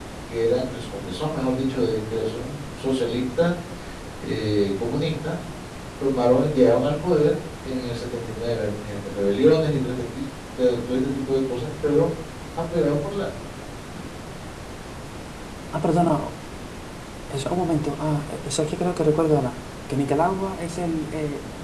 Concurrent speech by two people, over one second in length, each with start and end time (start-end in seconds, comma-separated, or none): none